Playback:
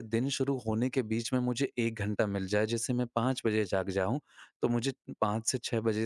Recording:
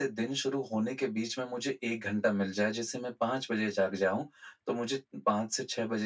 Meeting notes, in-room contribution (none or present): none